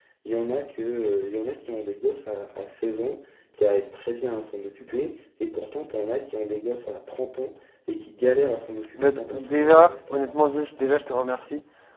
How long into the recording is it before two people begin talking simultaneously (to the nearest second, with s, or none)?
9 s